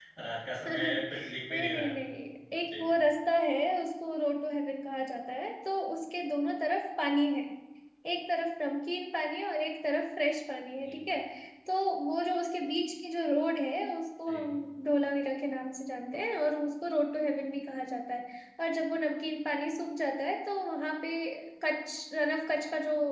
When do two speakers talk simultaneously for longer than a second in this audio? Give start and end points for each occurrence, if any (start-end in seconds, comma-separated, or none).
0.7-1.9